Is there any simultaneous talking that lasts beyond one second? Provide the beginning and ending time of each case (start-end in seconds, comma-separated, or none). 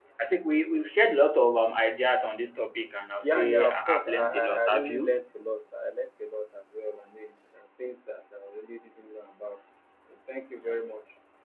3.2-5.2